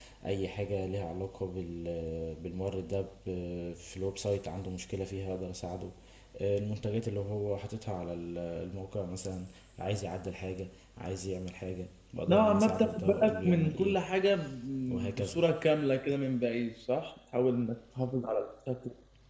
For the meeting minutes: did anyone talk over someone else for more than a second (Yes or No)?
Yes